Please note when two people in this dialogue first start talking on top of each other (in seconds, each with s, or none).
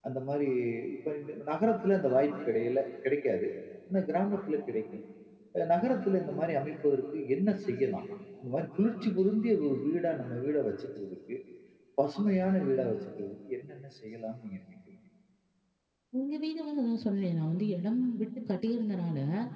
none